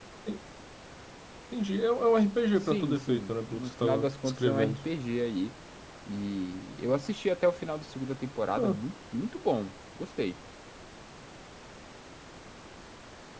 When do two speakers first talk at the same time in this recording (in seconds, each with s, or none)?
2.6 s